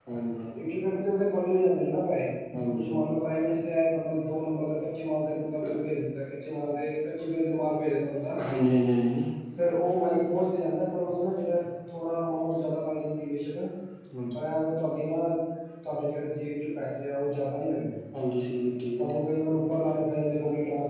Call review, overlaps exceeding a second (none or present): none